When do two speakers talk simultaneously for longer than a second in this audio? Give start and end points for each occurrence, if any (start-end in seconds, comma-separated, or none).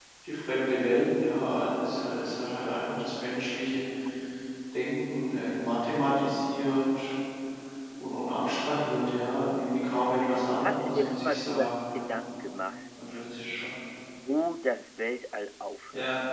10.6-12.1